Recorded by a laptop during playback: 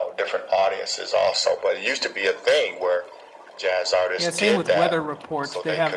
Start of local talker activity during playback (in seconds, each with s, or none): 4.2 s